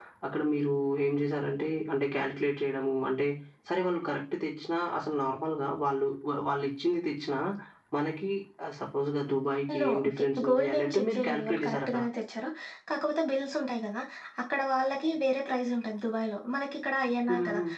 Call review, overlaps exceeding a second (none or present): present